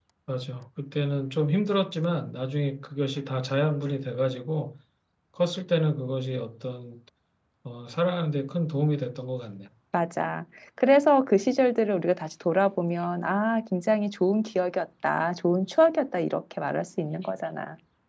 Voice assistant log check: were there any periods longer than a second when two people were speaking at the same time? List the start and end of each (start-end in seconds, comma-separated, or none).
none